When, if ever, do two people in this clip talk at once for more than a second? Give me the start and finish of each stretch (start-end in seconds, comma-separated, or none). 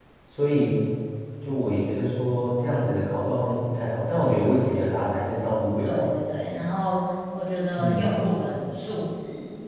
none